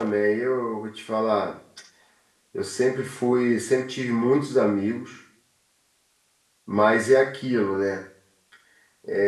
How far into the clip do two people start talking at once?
none

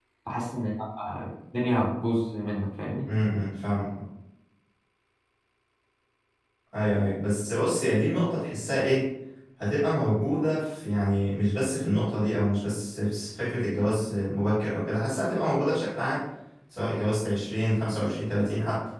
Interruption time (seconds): none

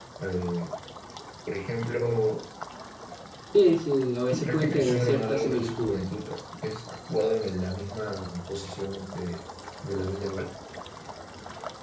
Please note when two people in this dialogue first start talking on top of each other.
4.3 s

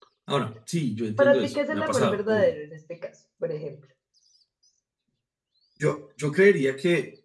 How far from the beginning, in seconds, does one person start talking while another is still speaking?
1.2 s

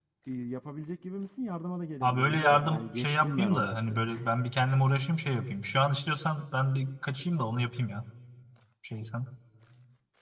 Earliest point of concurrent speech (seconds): 2.0 s

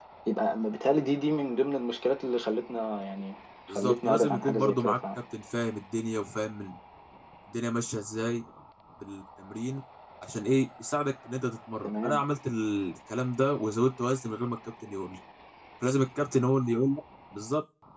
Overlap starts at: 3.7 s

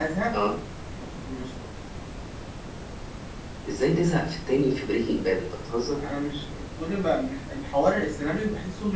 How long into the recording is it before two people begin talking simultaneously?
none

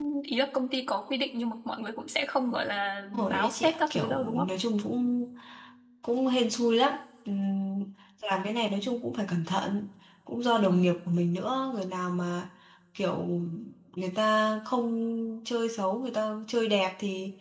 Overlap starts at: 3.1 s

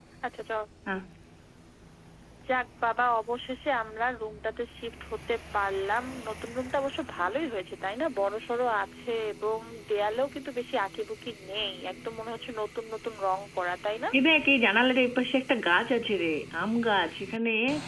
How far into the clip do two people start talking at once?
none

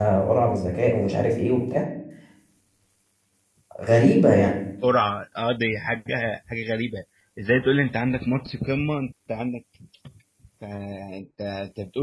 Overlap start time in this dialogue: none

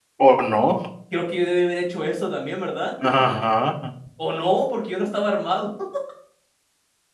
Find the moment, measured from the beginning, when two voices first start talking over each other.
none

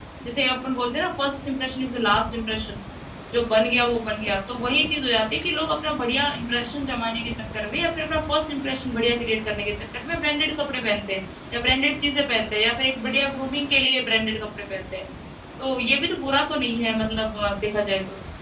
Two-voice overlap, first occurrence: none

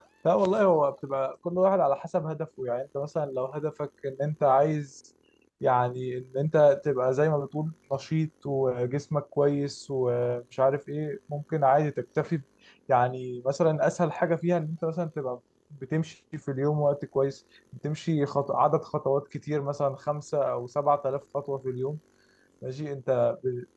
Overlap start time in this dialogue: none

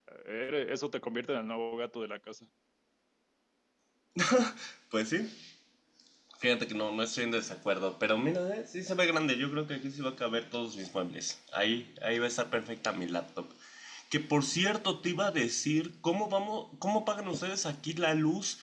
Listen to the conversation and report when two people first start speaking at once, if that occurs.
none

